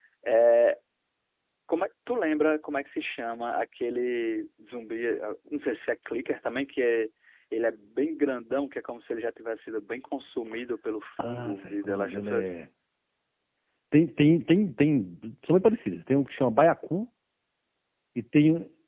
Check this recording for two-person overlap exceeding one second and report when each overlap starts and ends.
11.2-12.5

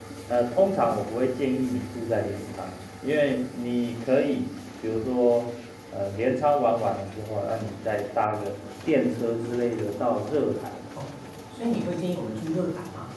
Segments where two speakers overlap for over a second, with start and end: none

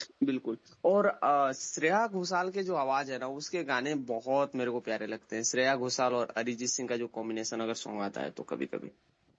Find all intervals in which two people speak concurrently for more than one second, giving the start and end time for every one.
none

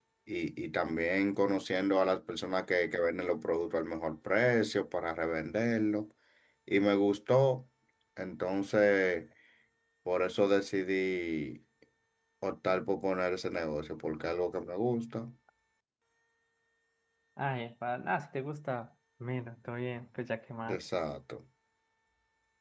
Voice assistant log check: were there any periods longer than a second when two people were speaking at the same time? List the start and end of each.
none

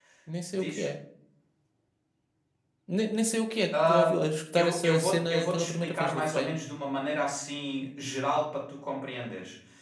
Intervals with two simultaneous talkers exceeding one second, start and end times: 4.6-6.5

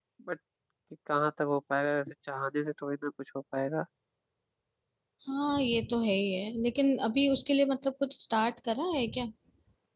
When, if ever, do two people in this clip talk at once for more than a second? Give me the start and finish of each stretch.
none

